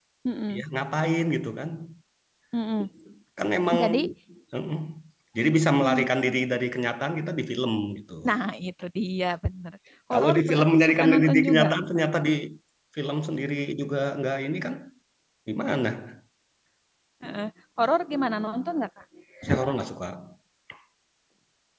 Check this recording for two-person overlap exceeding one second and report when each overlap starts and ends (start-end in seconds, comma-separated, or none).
10.1-11.7